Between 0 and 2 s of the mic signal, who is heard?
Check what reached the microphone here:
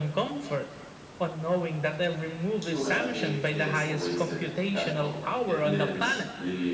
echo only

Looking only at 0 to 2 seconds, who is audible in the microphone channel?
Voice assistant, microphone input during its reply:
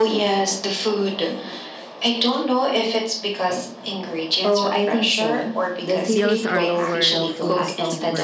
echo only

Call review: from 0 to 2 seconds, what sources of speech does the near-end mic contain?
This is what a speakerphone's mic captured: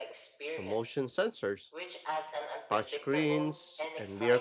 both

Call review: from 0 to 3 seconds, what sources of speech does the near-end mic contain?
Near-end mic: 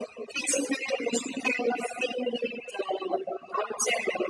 echo only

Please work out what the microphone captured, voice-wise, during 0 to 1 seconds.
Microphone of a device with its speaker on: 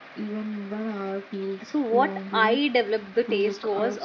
echo only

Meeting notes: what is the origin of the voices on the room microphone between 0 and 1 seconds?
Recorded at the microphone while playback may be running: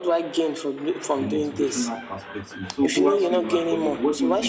echo only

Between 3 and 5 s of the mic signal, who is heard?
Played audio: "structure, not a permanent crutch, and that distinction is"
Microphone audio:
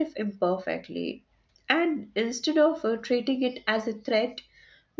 user only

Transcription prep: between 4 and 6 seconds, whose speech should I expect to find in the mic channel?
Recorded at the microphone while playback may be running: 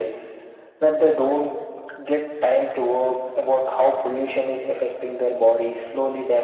echo only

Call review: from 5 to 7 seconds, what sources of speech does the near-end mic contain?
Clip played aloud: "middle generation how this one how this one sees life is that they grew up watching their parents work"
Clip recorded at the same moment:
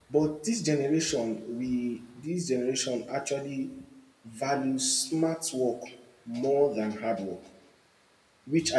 user only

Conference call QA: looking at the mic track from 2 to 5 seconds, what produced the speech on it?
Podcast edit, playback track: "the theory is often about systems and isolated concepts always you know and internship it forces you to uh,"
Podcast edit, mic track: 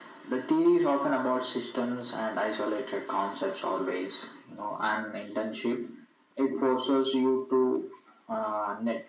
echo only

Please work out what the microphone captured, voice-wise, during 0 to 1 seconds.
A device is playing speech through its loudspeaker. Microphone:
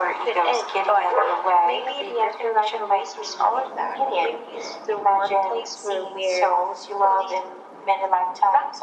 echo only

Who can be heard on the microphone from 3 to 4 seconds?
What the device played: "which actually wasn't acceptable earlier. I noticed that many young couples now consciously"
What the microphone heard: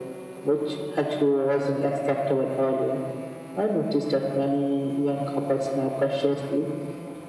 echo only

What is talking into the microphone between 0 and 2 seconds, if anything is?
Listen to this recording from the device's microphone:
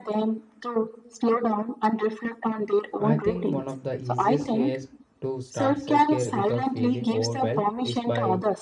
echo only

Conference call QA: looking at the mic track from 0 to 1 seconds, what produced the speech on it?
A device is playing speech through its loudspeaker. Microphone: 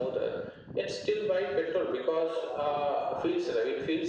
echo only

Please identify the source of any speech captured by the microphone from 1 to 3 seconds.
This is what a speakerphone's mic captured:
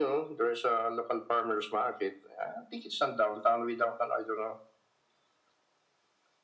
echo only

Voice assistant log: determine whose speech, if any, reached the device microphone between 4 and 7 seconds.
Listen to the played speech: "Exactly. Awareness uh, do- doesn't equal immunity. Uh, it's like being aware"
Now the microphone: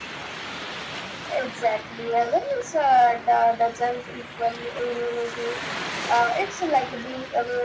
echo only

